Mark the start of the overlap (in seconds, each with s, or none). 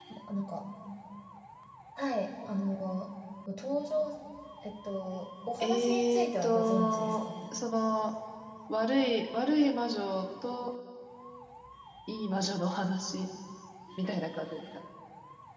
5.6 s